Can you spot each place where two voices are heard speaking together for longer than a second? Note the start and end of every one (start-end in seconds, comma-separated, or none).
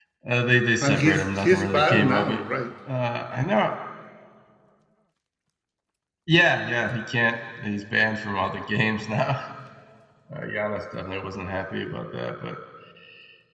0.8-2.4